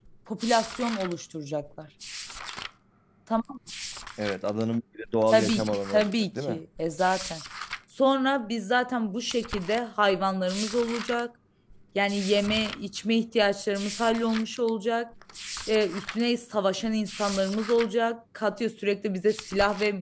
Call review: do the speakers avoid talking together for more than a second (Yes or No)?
No